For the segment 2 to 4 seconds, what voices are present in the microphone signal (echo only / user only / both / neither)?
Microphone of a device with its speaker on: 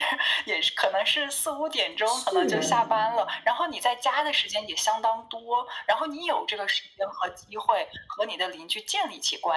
both